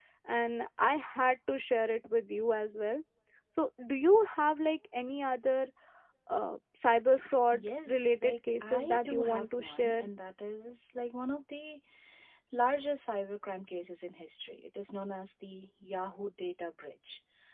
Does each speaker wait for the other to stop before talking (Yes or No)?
No